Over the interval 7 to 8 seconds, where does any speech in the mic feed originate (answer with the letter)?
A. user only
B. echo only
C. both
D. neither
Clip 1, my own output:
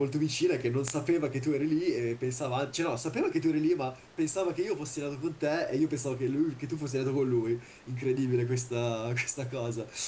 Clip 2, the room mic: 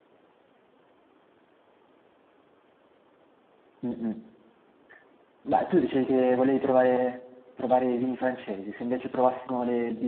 A